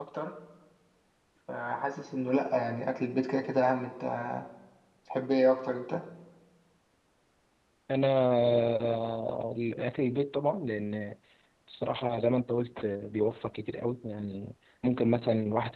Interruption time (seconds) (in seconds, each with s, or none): none